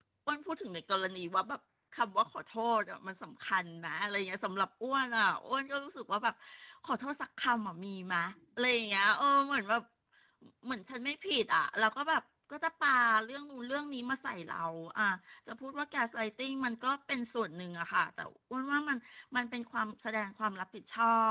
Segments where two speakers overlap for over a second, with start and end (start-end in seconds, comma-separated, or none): none